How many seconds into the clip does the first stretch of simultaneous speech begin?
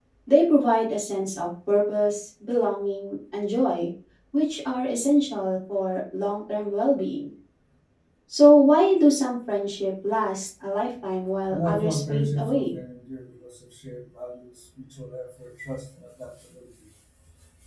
11.5 s

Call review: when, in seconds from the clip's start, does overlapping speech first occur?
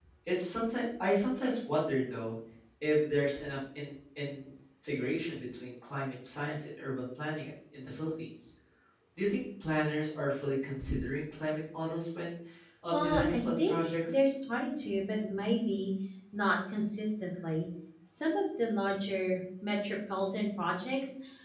12.9 s

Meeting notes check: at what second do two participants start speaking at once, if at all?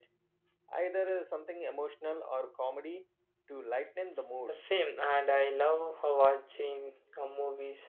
none

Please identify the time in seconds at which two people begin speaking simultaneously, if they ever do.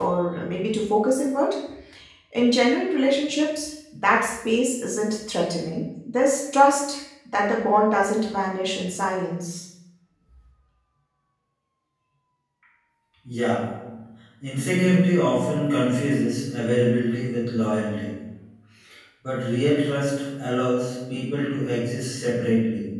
none

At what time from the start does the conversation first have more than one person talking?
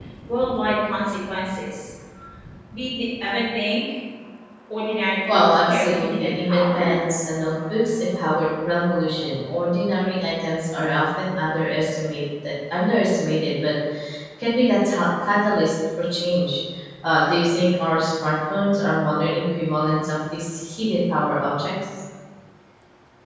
5.3 s

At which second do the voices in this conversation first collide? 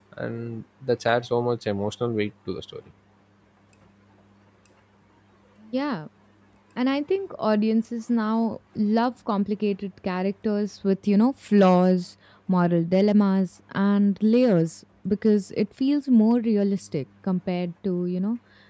none

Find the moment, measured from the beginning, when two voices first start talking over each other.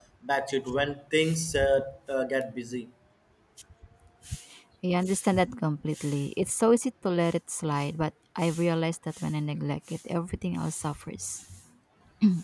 none

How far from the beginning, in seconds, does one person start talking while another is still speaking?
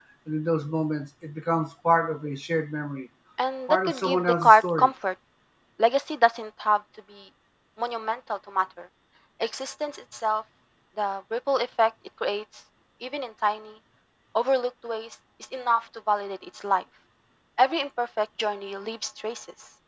3.7 s

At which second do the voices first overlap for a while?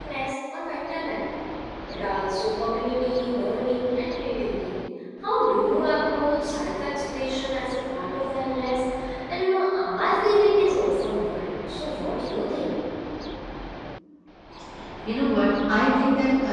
none

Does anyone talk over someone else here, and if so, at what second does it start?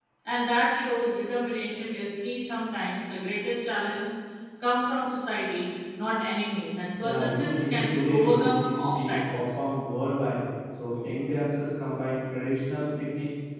7.0 s

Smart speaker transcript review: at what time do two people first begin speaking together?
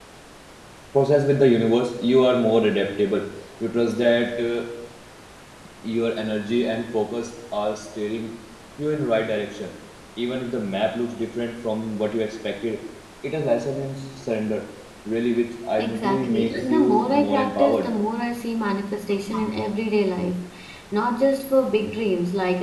15.8 s

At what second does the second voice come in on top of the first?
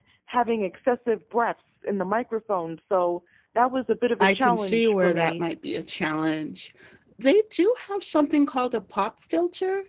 4.2 s

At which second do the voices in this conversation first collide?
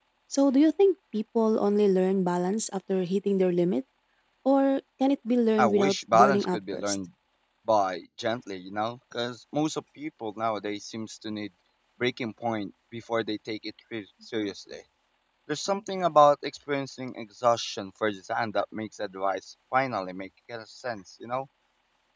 5.6 s

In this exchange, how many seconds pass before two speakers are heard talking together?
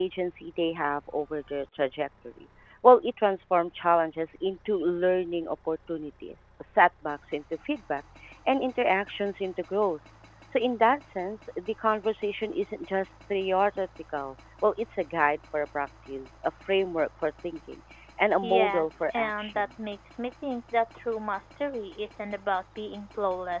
18.4 s

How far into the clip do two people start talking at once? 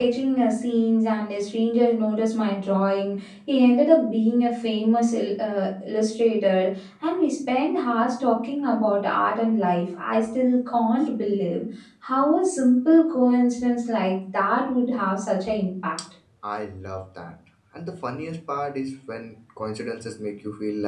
none

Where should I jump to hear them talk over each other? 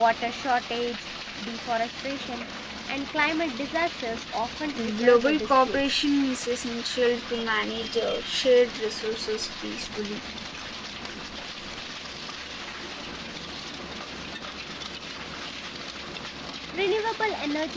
4.7 s

